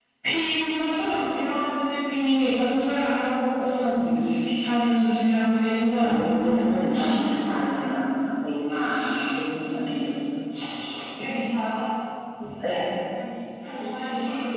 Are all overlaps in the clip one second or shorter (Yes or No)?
No